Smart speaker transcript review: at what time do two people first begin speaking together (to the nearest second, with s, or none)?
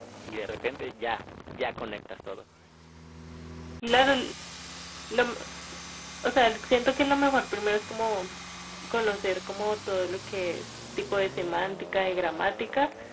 none